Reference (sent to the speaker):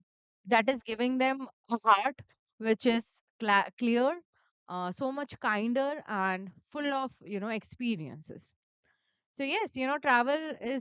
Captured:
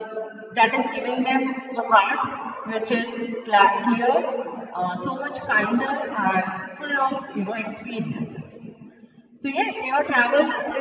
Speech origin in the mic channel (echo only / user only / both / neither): echo only